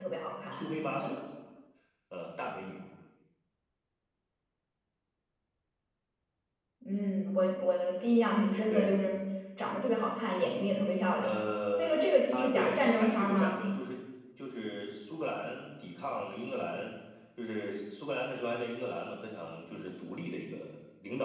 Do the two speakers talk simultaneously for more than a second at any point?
Yes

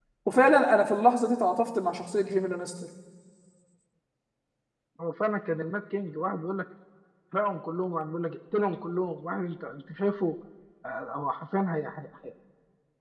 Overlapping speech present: No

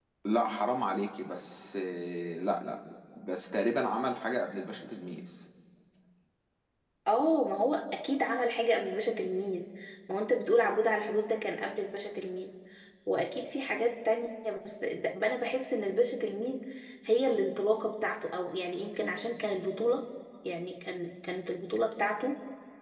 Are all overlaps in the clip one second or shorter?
Yes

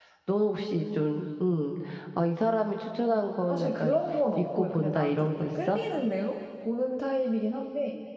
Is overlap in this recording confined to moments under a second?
No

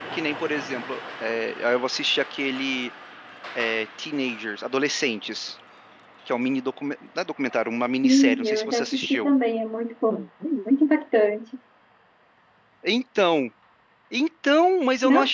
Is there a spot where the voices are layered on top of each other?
Yes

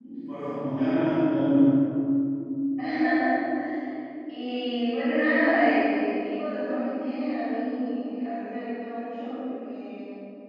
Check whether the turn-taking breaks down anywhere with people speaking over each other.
No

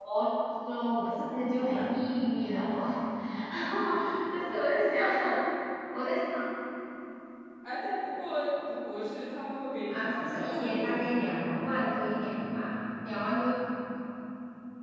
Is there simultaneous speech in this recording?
Yes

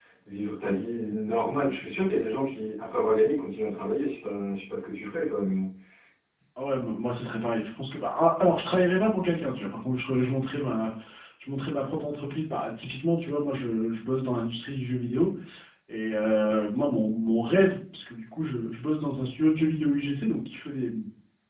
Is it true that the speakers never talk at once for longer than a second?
Yes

